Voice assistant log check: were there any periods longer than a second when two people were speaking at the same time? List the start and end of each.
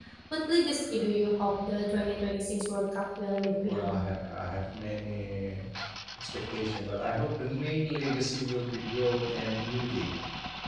none

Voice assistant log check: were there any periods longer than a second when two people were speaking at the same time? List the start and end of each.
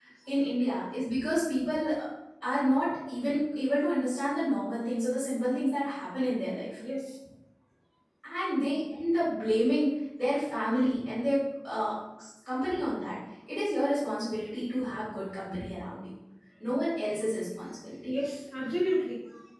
none

